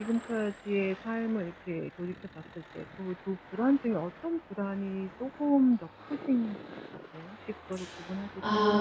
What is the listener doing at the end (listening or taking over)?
taking over